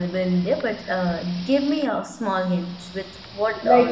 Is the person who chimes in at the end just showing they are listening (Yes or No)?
No